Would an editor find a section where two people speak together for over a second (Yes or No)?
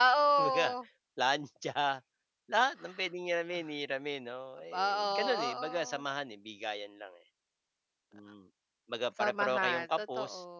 Yes